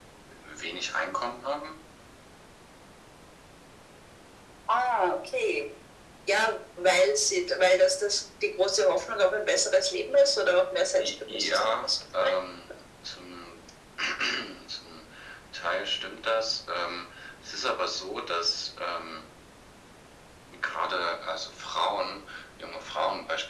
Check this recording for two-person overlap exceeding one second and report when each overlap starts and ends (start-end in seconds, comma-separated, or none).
10.9-12.3